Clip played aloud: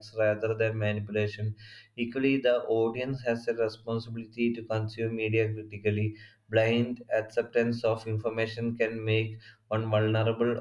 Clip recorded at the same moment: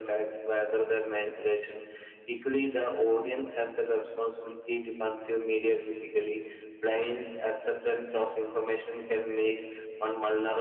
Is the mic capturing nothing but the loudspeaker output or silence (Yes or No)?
Yes